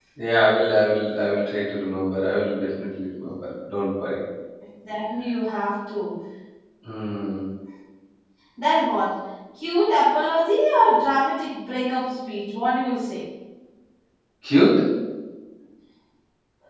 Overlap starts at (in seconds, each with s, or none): none